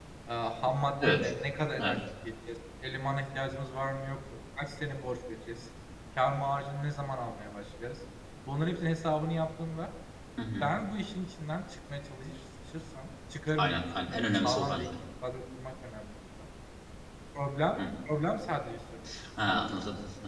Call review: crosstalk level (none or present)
present